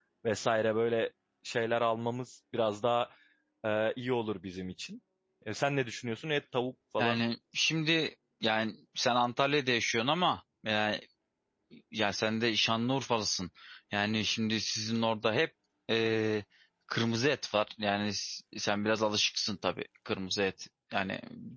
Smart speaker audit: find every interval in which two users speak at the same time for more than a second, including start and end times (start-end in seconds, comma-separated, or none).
none